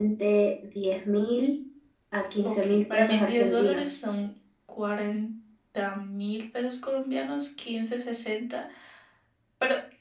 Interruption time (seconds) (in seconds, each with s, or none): 2.4 s